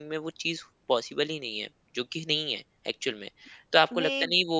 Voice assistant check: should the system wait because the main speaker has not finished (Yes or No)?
Yes